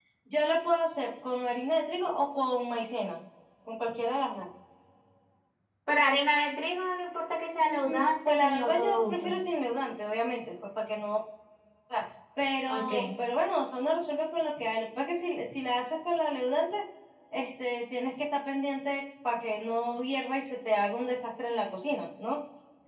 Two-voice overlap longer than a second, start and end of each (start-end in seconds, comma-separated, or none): 7.6-9.4